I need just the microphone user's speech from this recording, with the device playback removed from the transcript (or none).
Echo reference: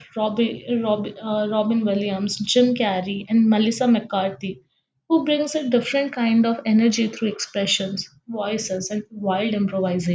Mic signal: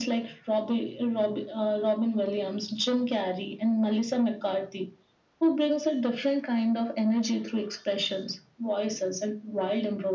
none